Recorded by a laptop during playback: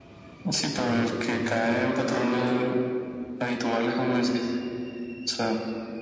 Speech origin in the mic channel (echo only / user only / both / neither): both